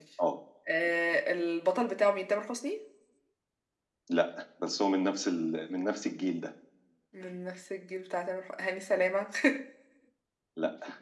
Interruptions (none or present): none